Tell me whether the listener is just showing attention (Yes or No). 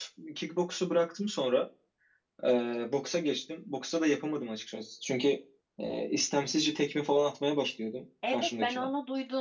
No